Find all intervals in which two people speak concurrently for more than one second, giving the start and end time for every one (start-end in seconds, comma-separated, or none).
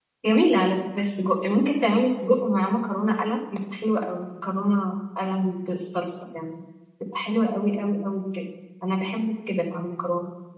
none